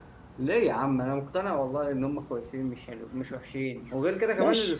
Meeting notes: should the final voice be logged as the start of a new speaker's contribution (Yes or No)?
Yes